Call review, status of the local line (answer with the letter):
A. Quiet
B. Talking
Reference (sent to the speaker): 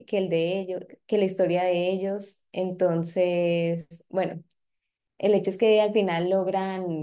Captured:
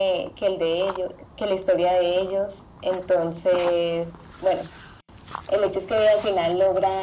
A